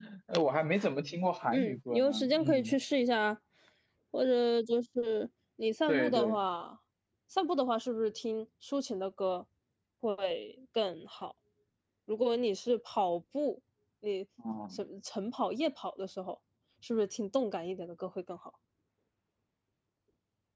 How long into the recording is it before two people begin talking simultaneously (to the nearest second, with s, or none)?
2 s